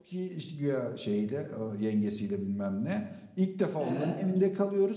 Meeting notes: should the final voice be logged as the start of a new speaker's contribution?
No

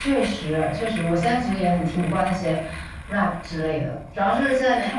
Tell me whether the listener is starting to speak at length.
No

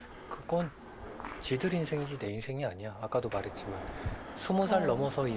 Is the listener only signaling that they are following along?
Yes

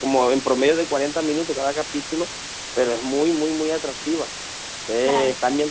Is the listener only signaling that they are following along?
Yes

